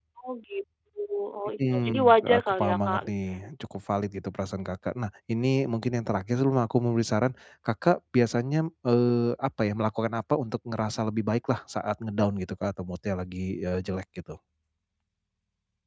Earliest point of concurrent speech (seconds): 1.7 s

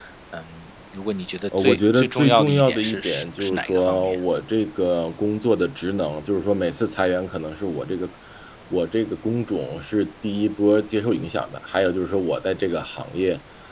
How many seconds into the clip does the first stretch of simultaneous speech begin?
1.5 s

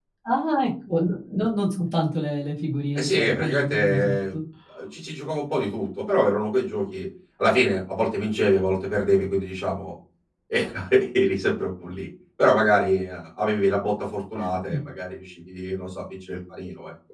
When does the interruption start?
3.0 s

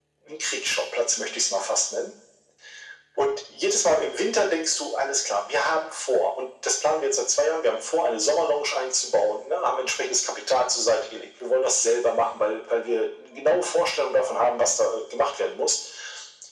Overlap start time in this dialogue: none

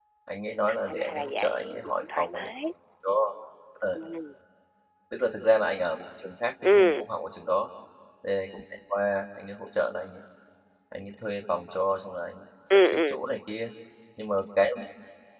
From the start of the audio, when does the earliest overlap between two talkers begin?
0.7 s

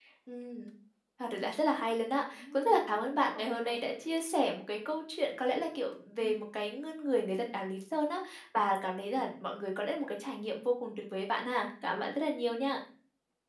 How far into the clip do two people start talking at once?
2.3 s

